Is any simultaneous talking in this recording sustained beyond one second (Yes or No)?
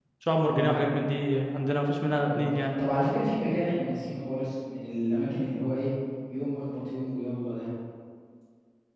No